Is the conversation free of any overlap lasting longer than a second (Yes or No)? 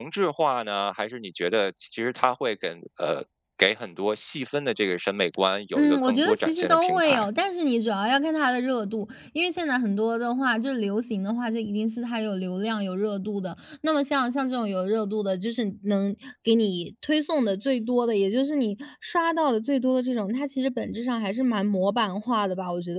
No